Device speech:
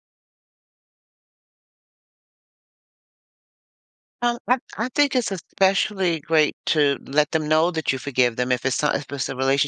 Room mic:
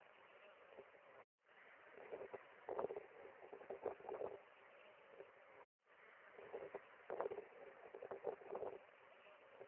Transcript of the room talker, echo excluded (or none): none